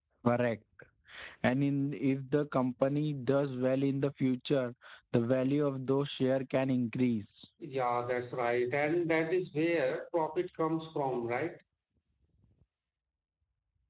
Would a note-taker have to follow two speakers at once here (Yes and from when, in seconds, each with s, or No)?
No